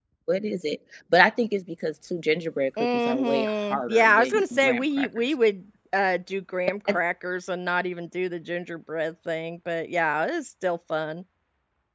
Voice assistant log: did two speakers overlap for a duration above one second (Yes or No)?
Yes